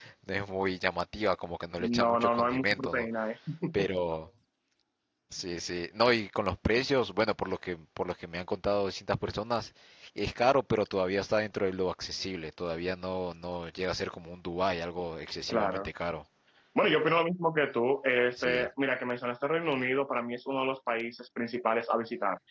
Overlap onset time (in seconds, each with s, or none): 1.8 s